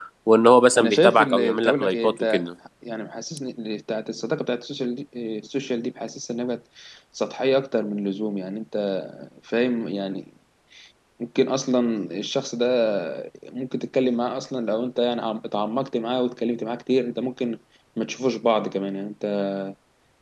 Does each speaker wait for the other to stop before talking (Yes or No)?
No